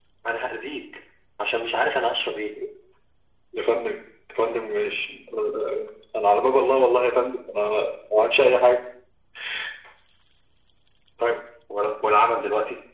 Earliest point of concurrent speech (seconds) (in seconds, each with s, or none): none